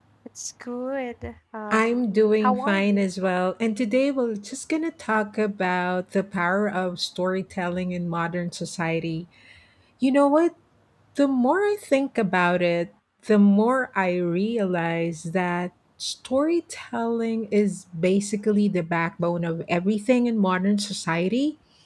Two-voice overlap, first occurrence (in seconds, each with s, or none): 1.7 s